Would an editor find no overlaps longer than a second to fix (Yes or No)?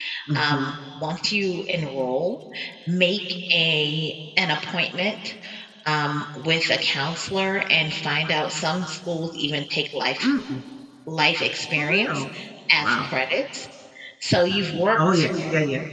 Yes